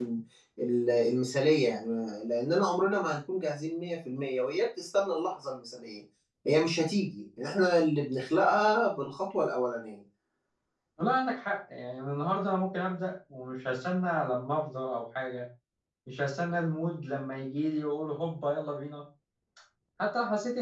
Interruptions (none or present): none